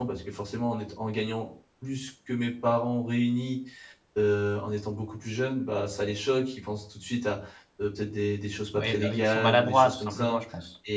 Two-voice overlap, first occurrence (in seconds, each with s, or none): 8.7 s